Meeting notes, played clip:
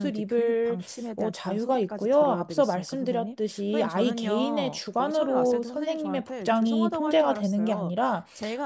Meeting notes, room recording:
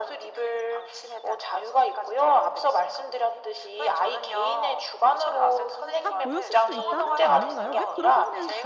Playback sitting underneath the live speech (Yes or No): No